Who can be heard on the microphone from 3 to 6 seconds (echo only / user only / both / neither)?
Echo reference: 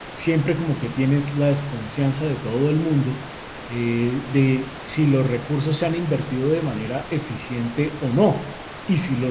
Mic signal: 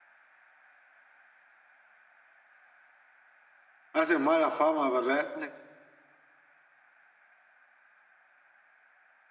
user only